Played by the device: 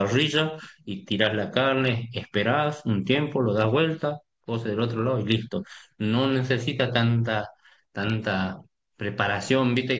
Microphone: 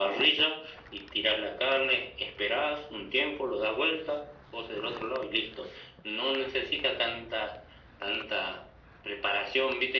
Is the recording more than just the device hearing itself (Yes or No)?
No